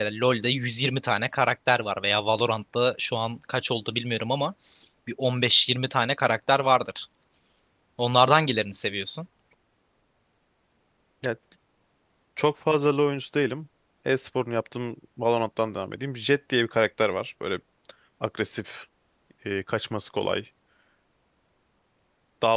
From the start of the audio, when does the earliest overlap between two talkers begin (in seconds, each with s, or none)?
none